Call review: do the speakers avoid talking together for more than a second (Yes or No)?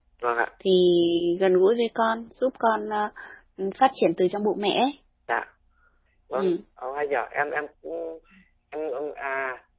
Yes